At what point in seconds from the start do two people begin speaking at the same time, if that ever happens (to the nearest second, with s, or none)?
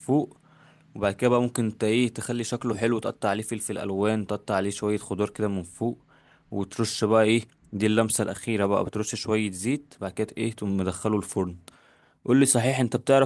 none